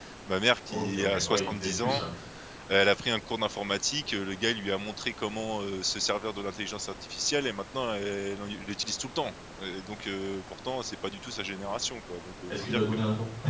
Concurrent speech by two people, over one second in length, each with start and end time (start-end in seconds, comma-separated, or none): 0.7-2.0